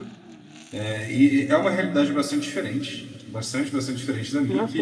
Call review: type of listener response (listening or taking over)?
listening